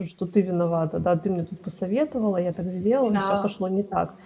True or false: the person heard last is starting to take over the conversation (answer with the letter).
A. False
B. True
A